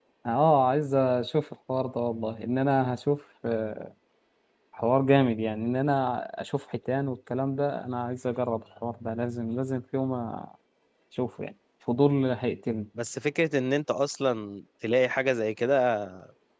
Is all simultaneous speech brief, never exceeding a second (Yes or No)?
Yes